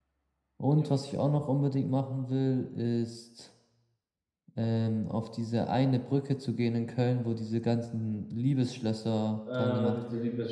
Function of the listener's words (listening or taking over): taking over